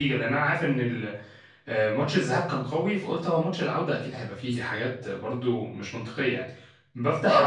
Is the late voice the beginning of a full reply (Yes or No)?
No